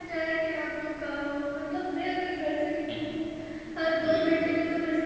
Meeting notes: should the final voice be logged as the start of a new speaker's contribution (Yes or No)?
No